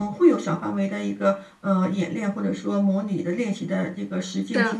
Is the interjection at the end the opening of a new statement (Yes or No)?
No